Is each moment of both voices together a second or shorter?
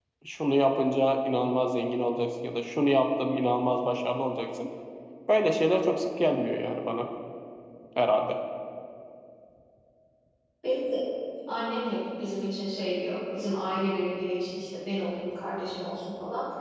Yes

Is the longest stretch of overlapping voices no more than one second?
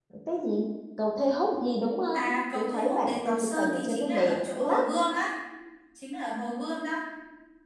No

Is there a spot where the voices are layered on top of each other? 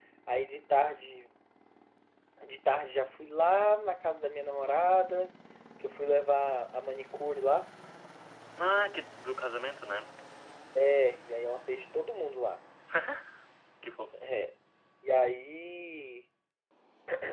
No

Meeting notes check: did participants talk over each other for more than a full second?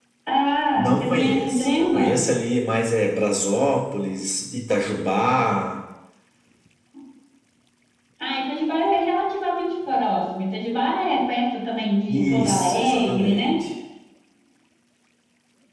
Yes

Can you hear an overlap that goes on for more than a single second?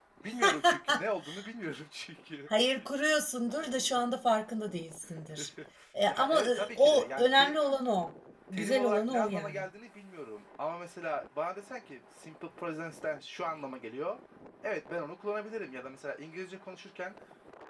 Yes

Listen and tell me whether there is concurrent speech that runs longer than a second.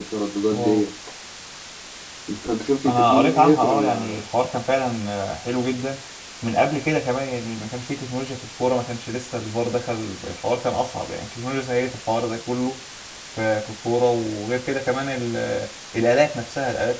Yes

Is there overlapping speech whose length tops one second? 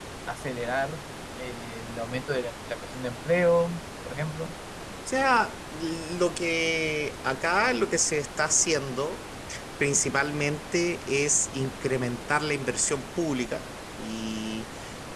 No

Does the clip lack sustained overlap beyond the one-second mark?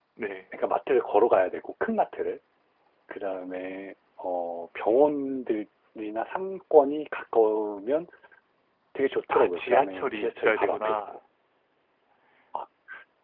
No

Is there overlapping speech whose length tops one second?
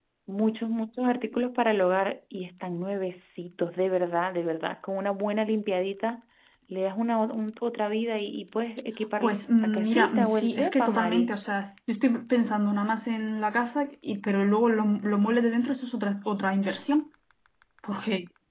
Yes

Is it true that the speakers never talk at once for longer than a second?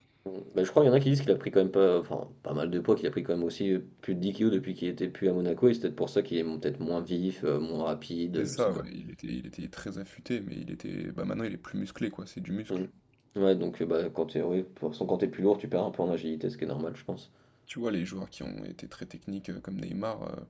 Yes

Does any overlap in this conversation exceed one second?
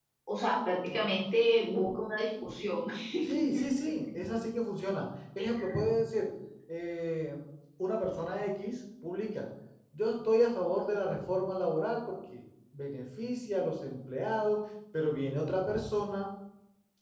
No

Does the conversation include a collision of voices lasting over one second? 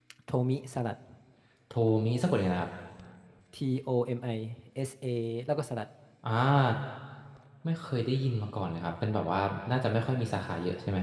No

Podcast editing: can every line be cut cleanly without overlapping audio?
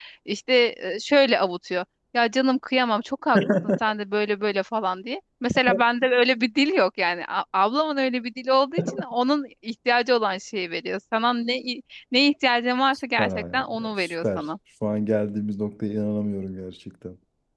No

